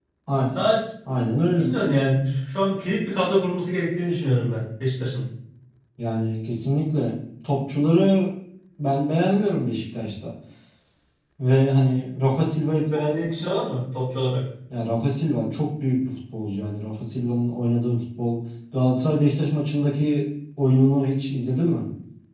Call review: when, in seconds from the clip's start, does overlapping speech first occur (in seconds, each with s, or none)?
none